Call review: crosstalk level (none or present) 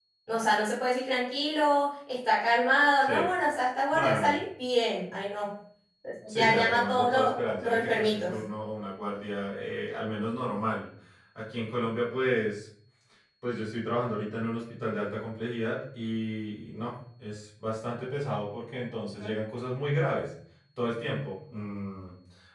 present